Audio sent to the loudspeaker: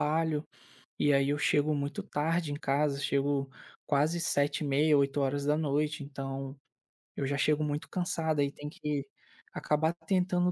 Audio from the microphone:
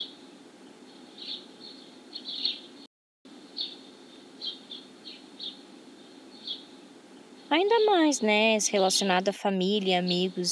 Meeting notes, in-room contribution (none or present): present